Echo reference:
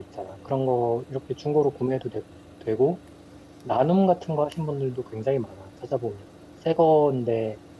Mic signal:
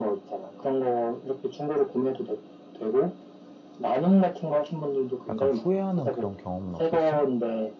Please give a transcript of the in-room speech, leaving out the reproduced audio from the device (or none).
약간 후회하는 그런 경험은 없었어?